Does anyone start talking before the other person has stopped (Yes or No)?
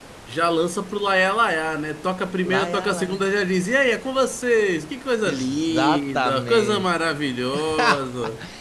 Yes